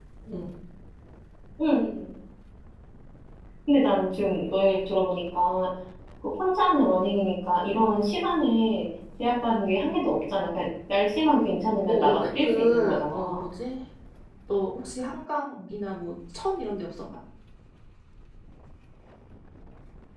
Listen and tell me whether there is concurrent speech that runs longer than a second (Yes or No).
Yes